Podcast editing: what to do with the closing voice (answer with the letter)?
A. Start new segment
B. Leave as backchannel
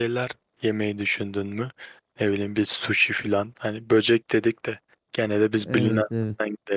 B